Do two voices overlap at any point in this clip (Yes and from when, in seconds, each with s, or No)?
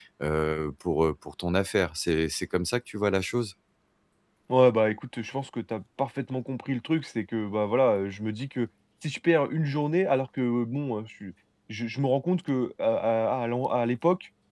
No